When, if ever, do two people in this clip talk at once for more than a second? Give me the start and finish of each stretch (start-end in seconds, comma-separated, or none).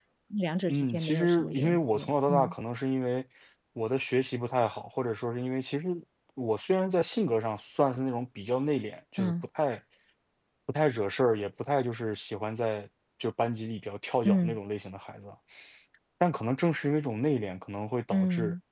0.7-2.5